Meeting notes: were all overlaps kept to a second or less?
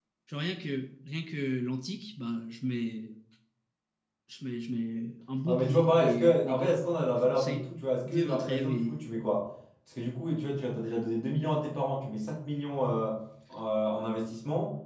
No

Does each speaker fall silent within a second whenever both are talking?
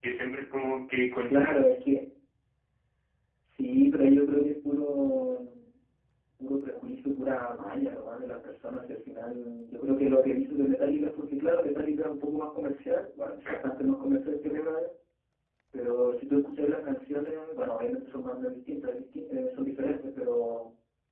Yes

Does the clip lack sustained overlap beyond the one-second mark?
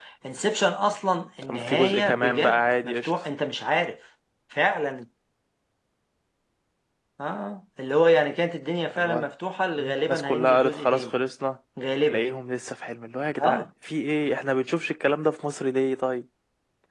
No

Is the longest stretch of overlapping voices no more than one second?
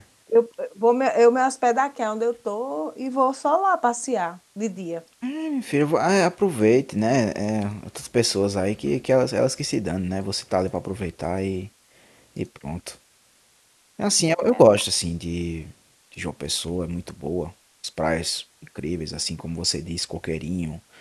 Yes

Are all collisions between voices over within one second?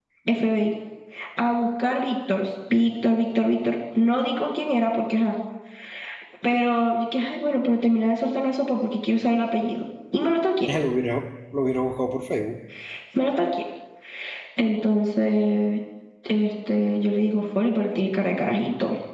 Yes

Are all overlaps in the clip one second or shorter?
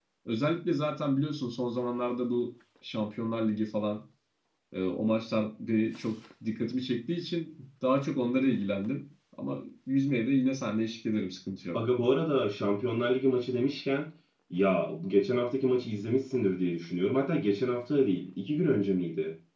Yes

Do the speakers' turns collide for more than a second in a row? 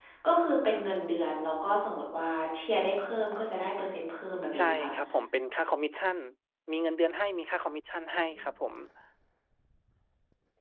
No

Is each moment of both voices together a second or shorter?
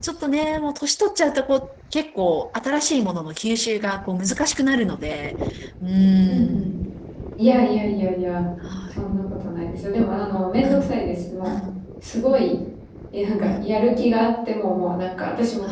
Yes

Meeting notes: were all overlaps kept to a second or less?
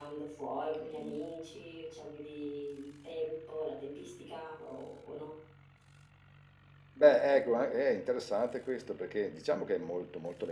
Yes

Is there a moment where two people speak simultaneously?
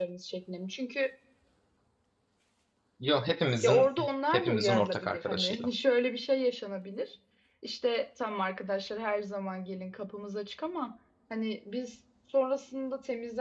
Yes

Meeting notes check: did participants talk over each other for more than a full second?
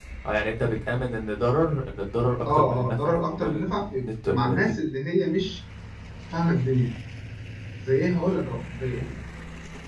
Yes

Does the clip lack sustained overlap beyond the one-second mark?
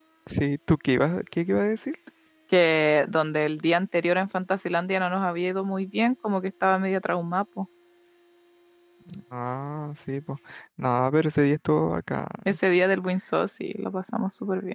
Yes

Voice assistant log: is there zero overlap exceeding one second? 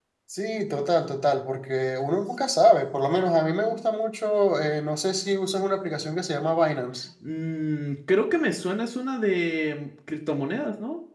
Yes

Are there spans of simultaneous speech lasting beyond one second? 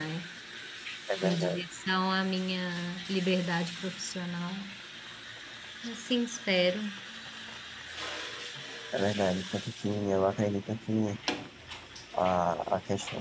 No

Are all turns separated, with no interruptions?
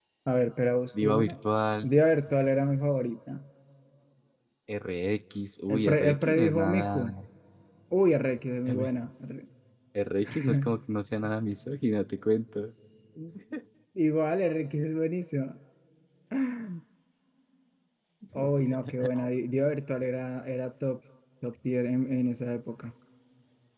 No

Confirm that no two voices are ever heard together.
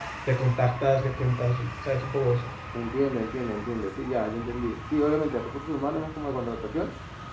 Yes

